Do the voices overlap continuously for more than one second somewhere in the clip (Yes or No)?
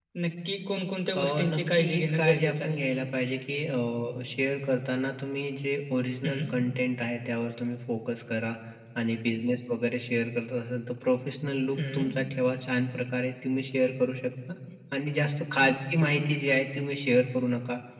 Yes